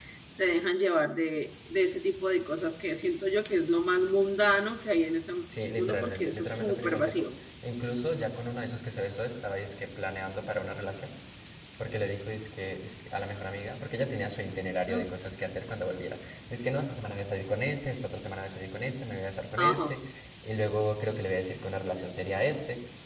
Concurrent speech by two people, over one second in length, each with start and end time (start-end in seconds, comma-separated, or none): 5.8-7.3